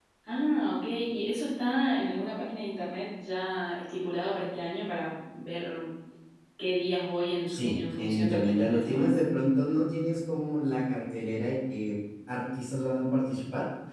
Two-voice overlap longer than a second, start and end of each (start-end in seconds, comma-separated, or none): 7.5-9.2